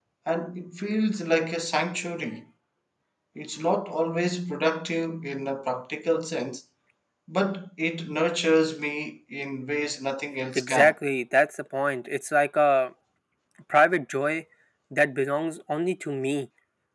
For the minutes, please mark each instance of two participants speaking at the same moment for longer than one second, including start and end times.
none

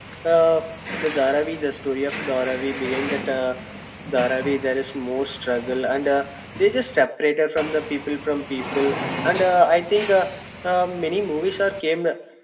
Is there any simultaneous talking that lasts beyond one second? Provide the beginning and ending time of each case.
none

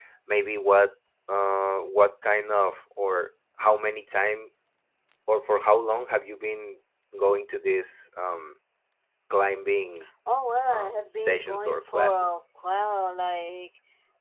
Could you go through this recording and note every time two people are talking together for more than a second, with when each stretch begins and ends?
10.7-12.4

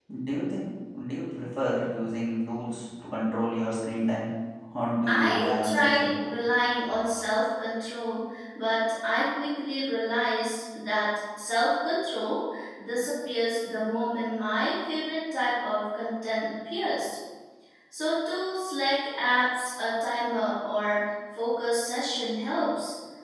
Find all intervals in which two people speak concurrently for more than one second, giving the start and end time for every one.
5.1-6.3

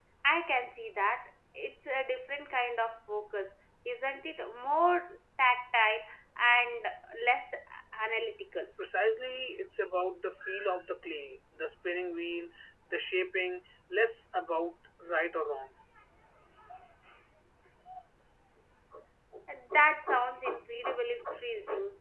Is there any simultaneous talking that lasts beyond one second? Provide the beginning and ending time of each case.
none

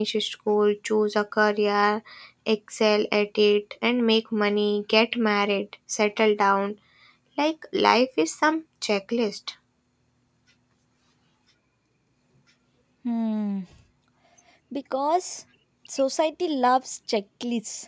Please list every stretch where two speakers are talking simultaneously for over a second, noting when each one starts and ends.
none

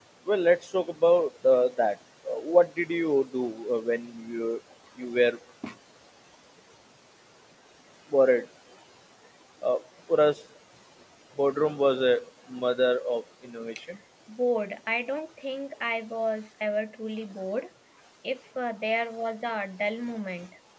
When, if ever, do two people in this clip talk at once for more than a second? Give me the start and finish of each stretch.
none

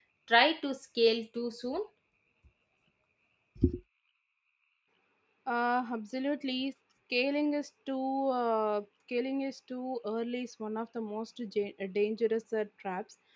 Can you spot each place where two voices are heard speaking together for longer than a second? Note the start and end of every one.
none

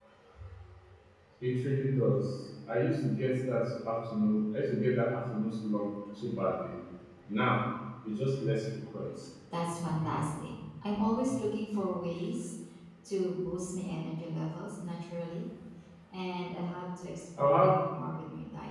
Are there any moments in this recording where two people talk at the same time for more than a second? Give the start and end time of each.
none

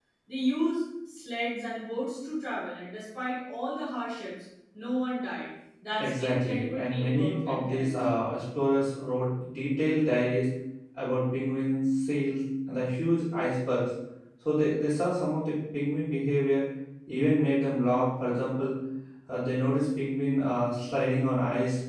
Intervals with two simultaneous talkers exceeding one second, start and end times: 6.0-7.9

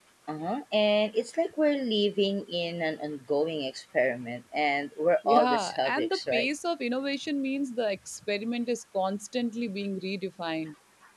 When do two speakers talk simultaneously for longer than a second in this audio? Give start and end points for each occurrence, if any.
5.2-6.5

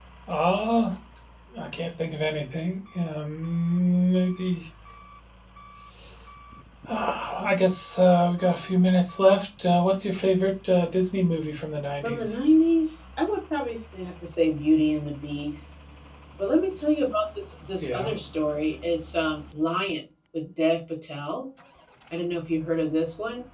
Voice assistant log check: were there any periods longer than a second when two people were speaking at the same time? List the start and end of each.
none

